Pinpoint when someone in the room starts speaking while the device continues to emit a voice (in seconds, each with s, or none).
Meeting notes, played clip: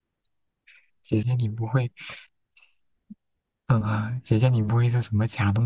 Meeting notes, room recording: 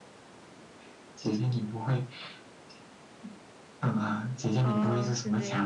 4.6 s